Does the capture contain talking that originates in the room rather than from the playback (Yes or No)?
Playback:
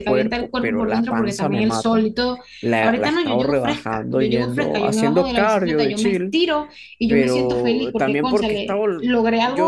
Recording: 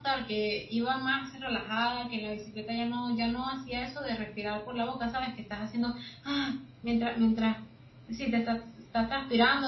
Yes